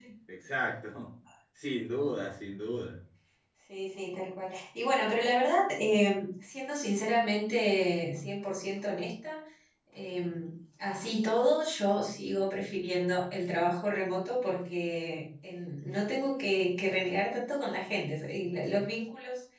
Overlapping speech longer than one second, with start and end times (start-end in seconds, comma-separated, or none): none